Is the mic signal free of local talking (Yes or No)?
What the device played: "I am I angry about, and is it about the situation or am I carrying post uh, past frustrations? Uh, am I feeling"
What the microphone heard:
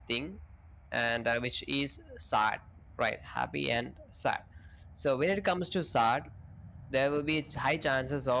No